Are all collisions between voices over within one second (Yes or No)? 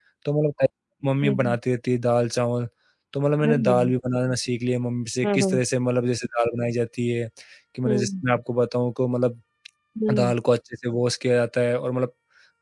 Yes